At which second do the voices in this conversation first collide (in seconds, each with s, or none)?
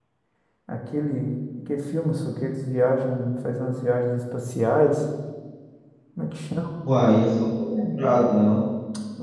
none